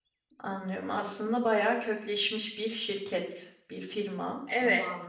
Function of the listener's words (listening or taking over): taking over